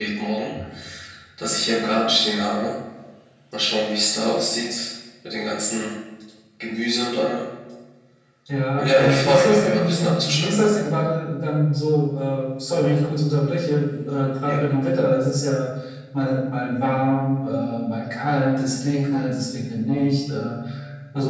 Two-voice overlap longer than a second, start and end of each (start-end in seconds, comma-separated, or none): 8.8-10.6